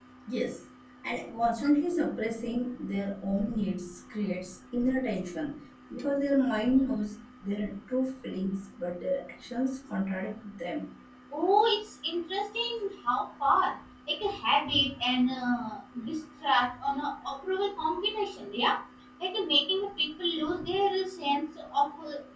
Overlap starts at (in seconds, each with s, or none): none